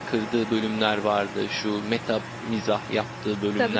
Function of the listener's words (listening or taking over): taking over